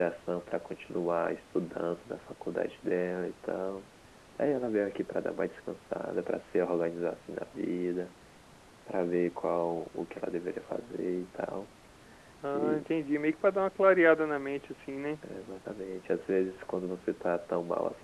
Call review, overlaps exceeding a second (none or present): none